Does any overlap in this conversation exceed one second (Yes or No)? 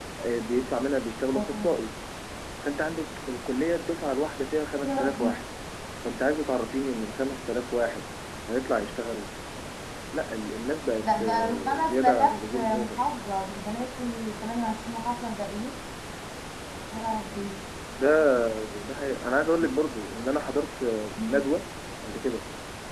Yes